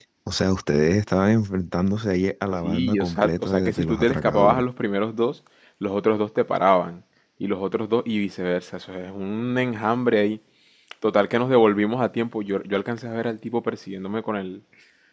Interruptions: present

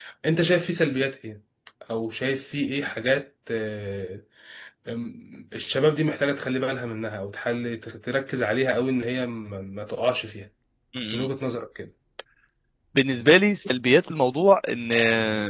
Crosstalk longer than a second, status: none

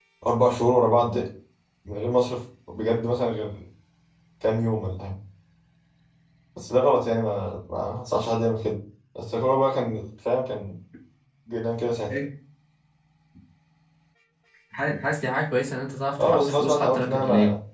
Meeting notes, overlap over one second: present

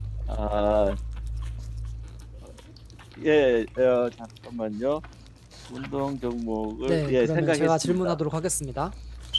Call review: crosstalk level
present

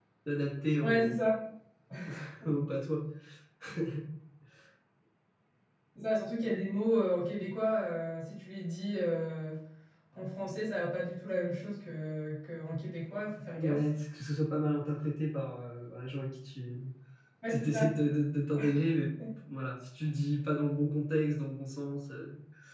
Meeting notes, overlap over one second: none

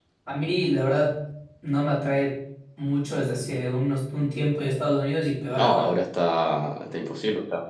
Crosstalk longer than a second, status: none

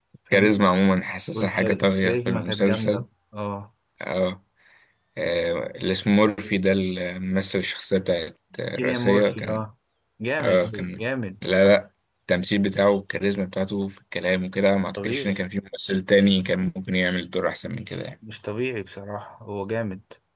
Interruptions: present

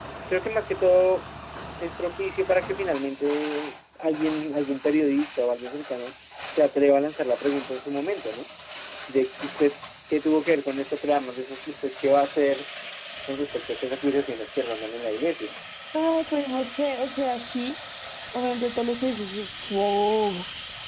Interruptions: none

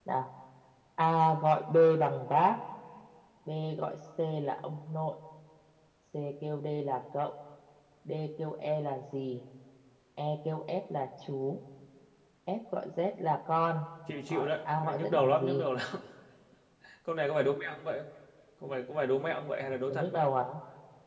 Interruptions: present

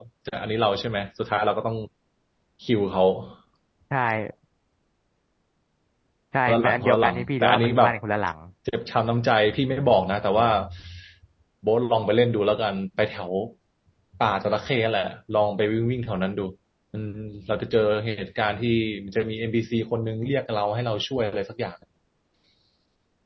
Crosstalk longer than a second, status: present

